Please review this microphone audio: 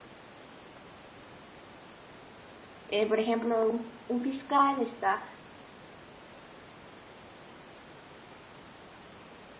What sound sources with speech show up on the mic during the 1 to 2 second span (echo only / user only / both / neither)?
neither